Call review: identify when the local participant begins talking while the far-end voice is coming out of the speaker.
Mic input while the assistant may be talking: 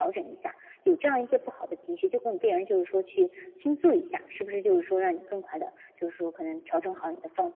none

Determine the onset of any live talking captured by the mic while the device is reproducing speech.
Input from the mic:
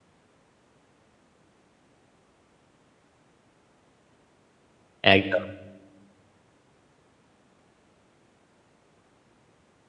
5.1 s

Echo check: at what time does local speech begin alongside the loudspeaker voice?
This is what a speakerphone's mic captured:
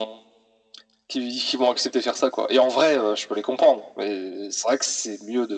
none

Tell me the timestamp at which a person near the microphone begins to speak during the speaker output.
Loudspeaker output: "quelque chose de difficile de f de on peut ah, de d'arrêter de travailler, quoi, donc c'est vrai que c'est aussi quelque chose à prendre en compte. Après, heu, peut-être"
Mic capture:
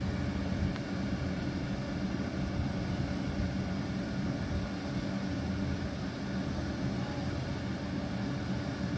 none

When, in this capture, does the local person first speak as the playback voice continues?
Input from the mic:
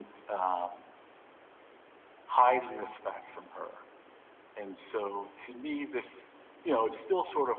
none

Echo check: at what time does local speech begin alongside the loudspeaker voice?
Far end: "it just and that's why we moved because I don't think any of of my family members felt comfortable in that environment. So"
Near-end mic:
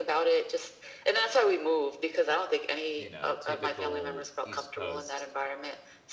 3.0 s

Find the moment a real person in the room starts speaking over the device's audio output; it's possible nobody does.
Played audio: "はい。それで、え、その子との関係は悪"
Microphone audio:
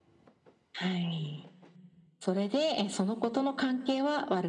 none

